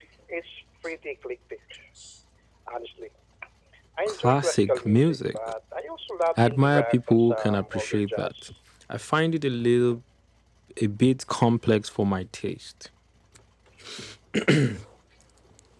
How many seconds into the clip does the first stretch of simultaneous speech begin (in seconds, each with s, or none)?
4.1 s